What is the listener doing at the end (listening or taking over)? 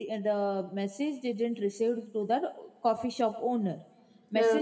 listening